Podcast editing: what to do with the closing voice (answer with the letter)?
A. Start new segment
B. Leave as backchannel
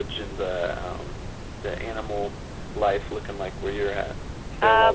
A